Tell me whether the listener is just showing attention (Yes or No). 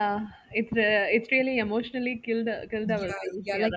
No